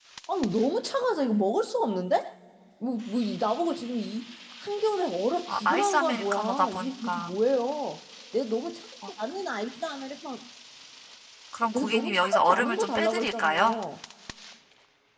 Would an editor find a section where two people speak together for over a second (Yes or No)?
Yes